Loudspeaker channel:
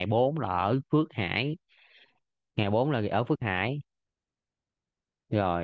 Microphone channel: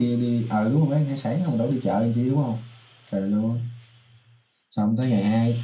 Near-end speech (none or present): present